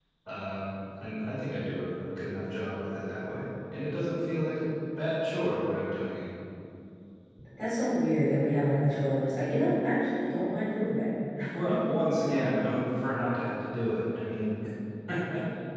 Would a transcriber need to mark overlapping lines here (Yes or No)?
No